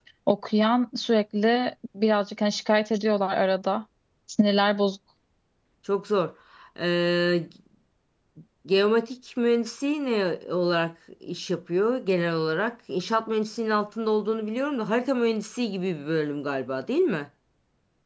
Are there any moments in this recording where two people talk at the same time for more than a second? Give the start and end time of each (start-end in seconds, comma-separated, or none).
none